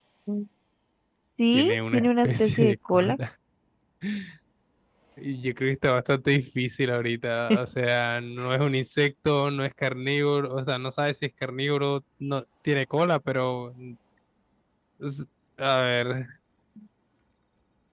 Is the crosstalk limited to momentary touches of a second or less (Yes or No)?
No